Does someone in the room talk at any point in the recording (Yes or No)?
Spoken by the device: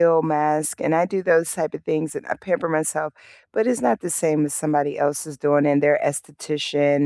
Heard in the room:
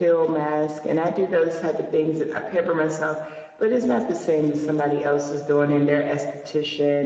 No